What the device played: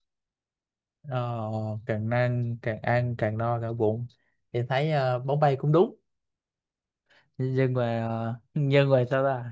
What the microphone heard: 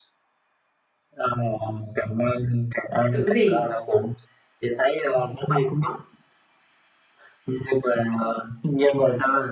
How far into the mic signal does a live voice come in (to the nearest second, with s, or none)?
3 s